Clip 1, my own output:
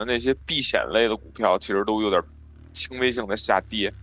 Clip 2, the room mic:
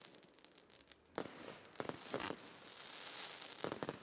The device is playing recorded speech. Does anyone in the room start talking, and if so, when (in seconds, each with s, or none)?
none